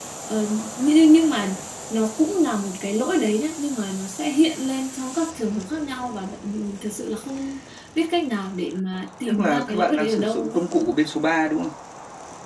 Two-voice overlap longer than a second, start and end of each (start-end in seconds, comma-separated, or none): 9.2-10.7